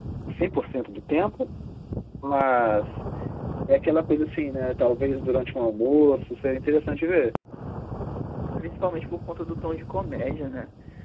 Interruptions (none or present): none